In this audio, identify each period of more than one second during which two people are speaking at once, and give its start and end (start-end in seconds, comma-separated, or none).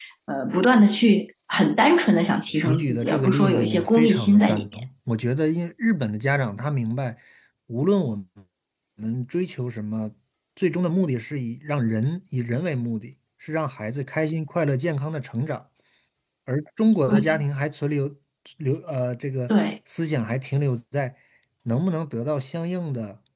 2.6-4.7